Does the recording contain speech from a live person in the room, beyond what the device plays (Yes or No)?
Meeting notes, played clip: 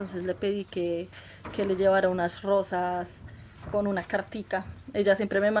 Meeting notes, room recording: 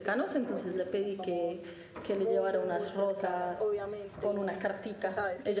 Yes